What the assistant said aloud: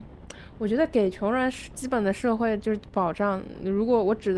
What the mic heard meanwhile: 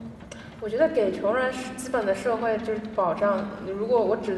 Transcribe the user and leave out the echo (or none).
嗯